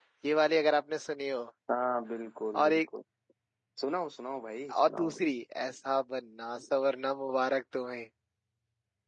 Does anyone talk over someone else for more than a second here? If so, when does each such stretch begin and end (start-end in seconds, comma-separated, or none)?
none